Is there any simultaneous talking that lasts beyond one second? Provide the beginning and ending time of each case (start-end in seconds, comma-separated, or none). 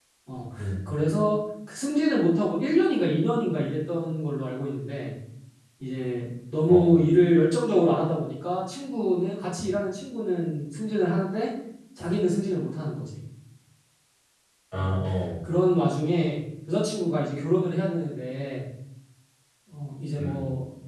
none